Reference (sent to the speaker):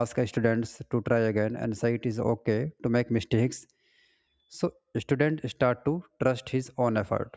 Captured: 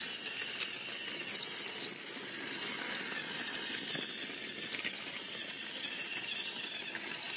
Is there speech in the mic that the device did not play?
No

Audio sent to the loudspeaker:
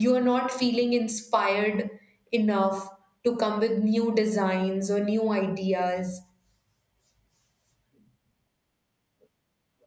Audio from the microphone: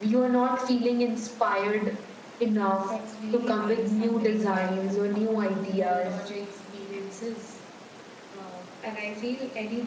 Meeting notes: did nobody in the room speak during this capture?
No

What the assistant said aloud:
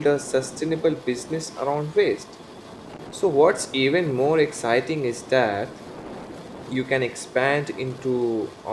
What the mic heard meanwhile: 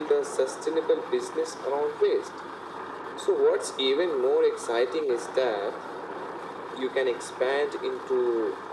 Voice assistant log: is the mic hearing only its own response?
Yes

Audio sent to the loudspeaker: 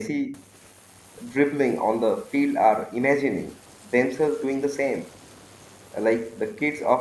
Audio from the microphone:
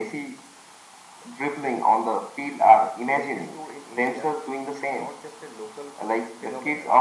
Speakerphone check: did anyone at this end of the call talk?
Yes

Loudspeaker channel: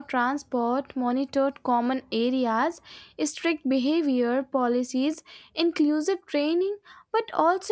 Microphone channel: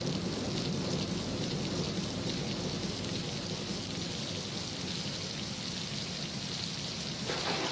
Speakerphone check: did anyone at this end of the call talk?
No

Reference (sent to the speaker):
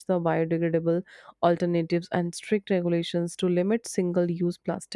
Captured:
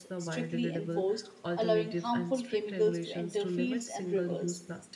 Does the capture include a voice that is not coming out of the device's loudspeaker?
Yes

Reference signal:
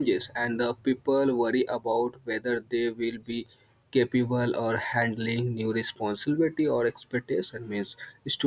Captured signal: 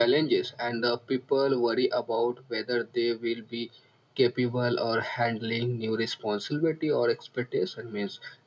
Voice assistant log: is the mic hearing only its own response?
Yes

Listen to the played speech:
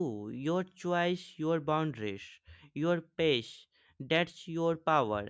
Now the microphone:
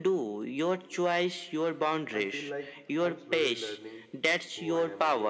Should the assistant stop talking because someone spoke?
Yes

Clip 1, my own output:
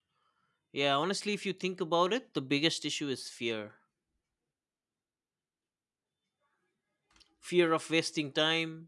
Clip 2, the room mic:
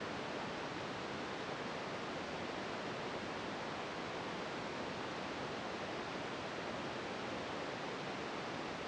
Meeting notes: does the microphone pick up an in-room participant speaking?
No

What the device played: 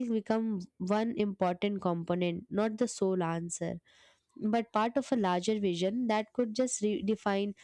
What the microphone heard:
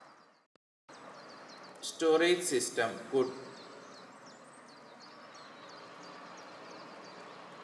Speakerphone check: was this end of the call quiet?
No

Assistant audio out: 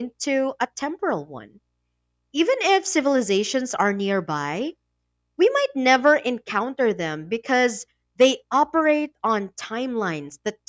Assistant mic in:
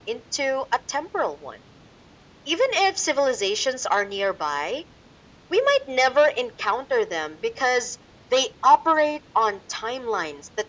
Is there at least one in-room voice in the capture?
No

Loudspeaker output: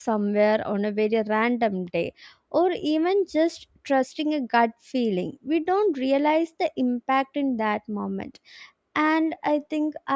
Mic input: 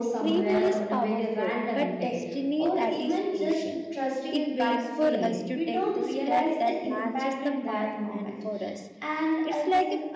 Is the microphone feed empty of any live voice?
No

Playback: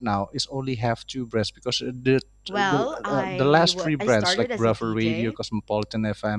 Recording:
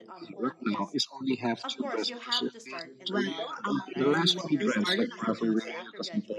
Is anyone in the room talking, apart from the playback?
Yes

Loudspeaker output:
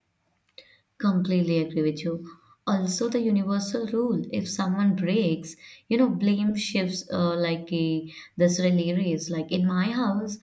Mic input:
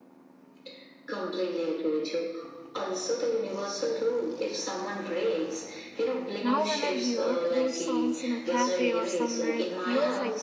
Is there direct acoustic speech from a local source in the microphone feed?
Yes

